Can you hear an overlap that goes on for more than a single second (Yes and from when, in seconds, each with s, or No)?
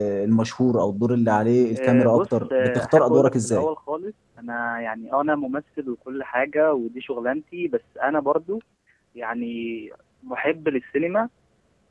Yes, from 1.7 s